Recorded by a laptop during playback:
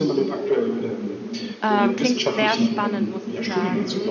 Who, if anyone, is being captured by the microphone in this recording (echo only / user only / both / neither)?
both